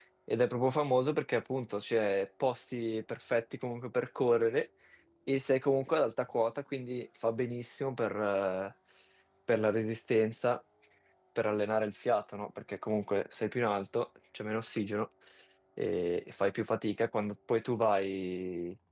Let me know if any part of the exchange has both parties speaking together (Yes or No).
No